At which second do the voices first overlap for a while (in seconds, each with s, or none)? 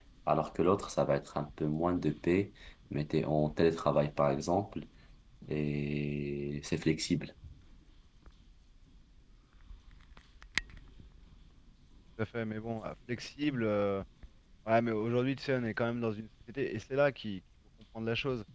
none